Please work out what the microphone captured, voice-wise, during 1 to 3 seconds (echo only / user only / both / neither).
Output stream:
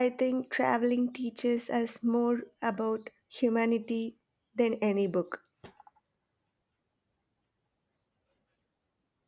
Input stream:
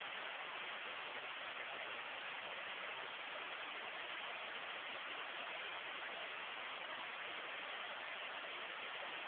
neither